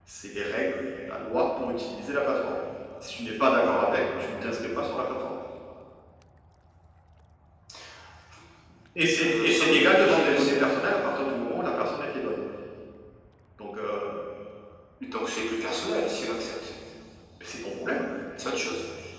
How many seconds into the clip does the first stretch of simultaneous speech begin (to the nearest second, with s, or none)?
9 s